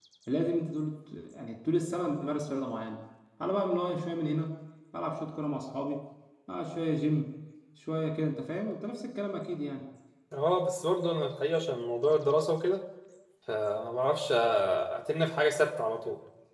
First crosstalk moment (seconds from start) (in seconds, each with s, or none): none